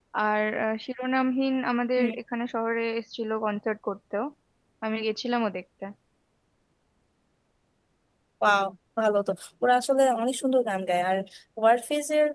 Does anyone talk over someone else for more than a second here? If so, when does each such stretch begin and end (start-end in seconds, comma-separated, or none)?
none